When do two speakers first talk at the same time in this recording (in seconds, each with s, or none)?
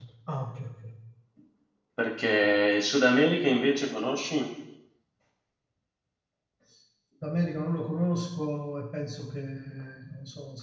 none